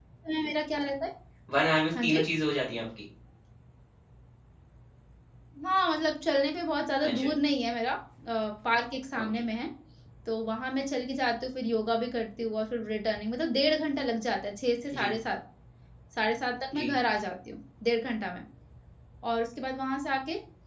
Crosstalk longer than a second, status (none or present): none